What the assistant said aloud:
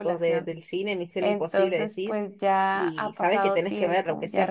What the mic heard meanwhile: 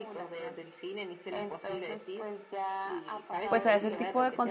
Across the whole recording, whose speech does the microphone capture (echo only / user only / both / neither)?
both